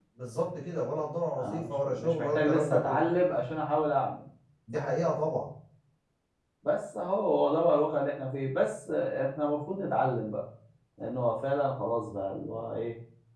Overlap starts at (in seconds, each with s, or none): 1.4 s